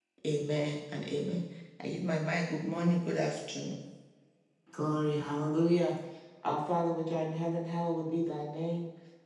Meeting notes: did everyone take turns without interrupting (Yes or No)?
Yes